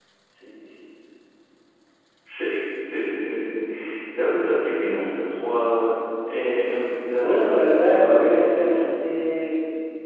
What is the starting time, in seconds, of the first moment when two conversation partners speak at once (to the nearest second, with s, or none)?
7 s